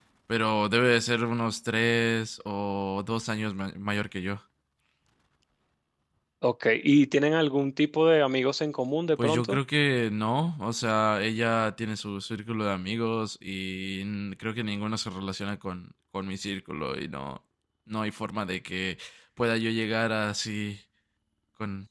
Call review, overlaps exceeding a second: none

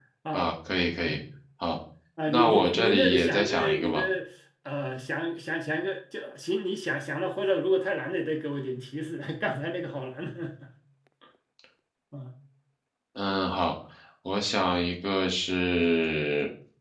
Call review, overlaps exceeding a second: present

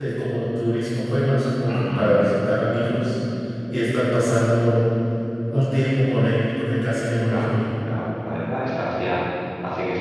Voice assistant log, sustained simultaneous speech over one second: none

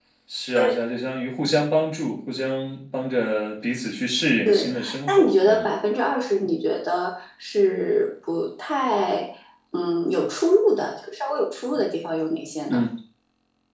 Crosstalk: present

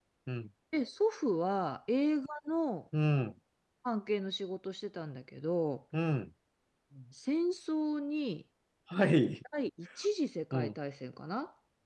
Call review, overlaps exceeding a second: none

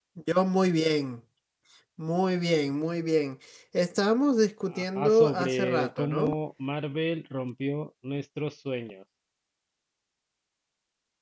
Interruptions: present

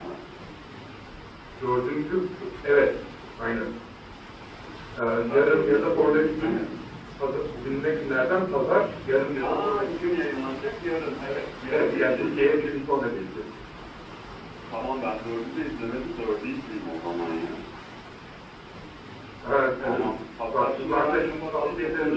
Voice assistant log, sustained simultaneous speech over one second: present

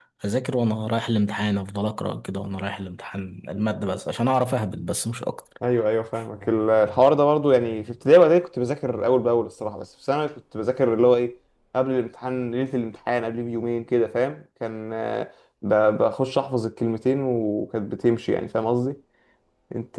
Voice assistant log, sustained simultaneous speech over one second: none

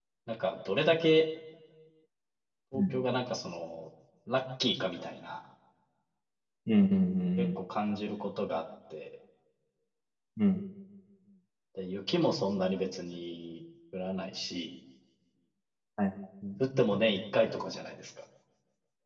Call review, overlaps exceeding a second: none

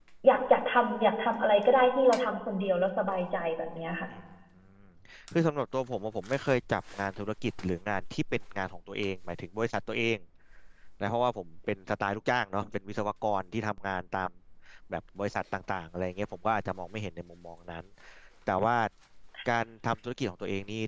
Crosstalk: none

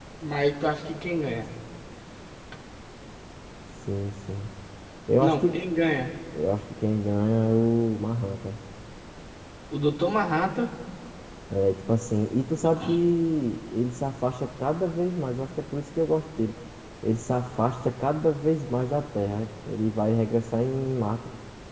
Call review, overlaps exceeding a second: none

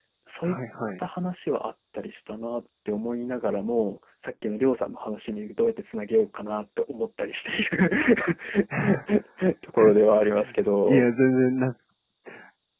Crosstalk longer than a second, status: none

